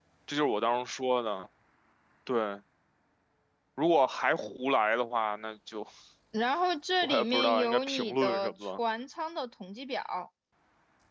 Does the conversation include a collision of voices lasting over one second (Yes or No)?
Yes